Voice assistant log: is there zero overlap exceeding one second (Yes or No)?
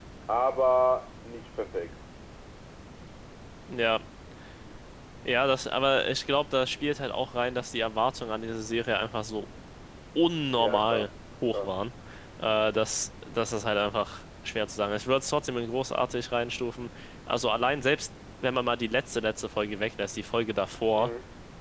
Yes